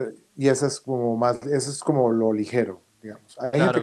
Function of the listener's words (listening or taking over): listening